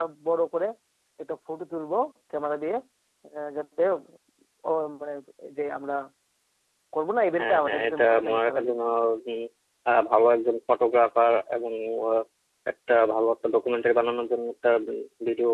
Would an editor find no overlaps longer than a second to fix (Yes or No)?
No